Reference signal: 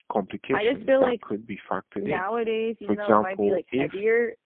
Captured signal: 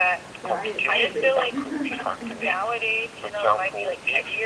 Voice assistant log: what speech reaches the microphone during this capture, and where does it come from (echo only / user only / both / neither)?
both